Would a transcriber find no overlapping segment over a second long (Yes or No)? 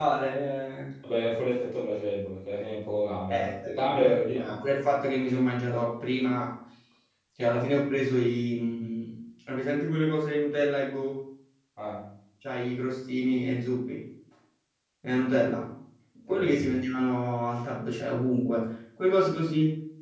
No